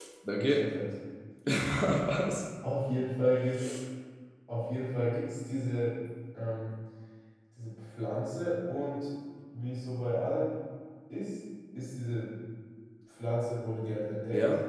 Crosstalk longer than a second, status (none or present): none